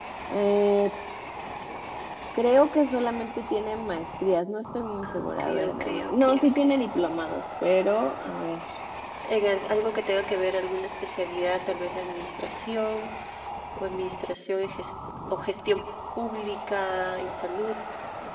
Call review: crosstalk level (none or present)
present